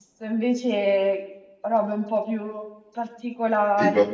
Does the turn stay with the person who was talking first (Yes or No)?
Yes